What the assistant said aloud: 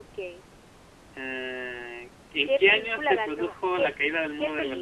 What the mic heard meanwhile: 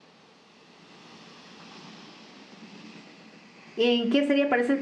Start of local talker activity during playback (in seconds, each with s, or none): 3.8 s